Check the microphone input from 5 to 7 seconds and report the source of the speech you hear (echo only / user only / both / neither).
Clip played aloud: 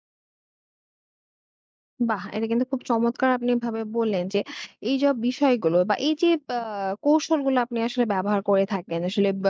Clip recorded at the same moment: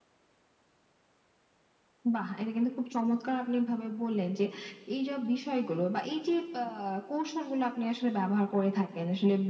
echo only